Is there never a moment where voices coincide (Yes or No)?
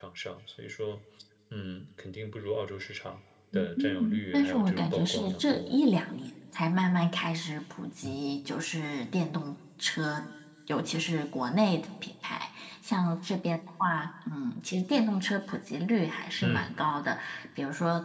No